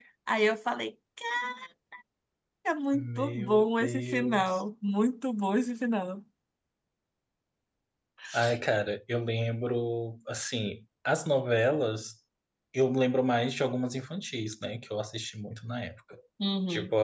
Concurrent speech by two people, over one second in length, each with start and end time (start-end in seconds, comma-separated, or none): 2.9-4.6